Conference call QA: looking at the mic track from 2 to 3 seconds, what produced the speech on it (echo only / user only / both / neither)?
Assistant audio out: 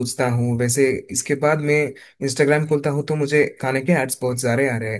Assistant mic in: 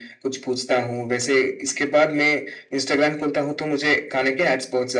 echo only